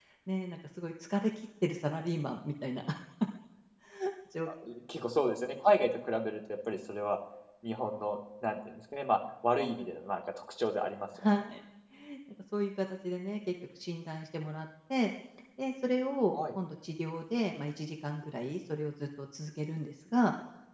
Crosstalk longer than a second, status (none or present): none